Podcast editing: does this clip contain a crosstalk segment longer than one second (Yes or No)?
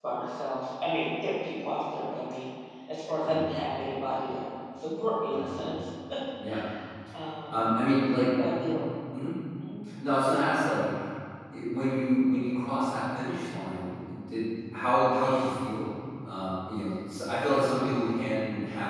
No